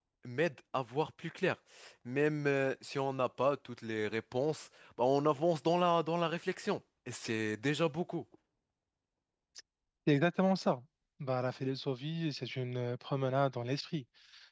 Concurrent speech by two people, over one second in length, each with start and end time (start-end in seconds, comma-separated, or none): none